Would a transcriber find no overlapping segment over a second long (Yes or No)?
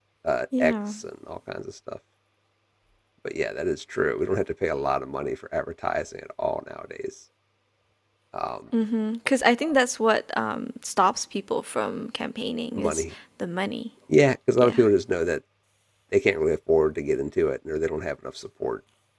Yes